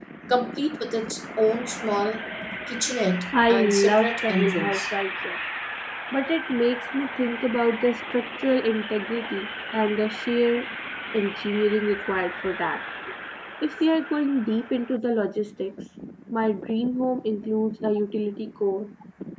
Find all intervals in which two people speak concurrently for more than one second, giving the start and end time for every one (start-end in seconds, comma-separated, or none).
3.5-4.8